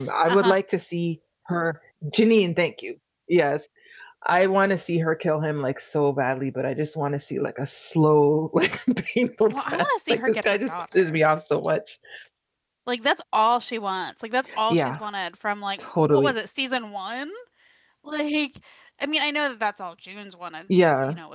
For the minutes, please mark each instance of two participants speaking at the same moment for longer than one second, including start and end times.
9.5-11.2

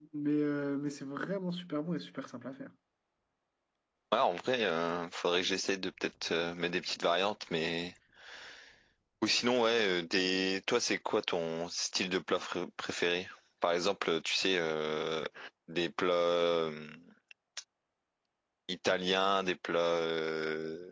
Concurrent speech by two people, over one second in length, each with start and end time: none

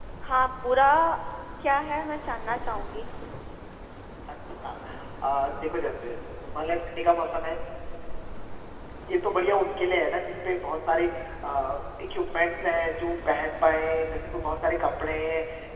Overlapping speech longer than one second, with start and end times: none

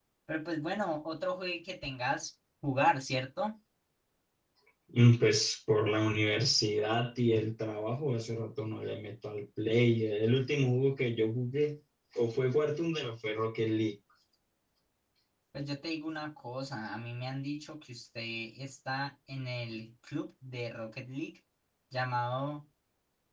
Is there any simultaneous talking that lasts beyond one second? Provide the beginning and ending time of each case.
none

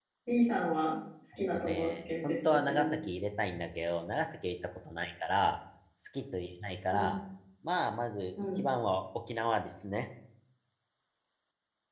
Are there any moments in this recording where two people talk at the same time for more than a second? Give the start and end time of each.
1.4-2.9

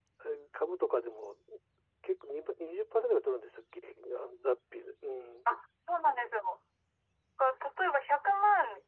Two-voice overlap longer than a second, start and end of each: none

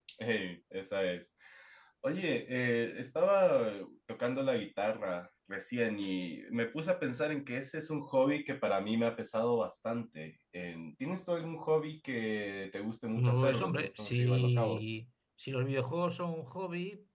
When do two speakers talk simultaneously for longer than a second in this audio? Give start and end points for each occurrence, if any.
13.2-14.8

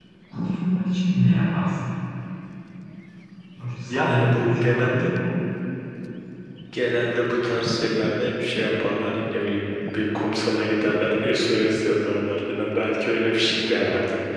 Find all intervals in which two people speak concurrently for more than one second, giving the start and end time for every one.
3.9-5.1

